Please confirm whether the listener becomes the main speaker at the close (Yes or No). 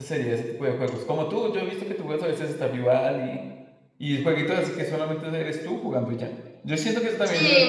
Yes